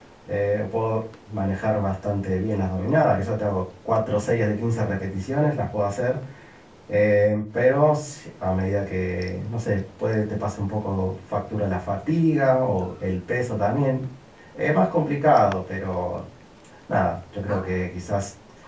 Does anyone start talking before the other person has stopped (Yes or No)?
No